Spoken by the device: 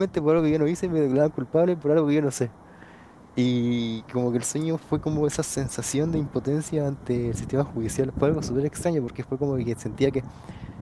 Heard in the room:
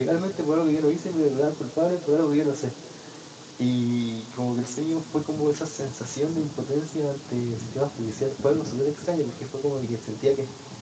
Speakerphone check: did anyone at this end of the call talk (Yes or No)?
No